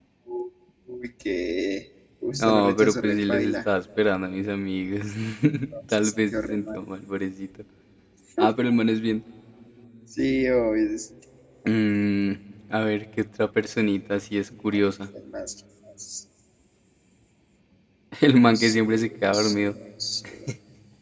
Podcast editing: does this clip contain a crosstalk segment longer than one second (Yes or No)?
Yes